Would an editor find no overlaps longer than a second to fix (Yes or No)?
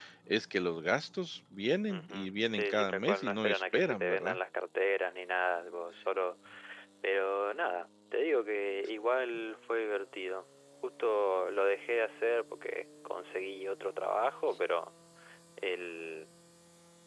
No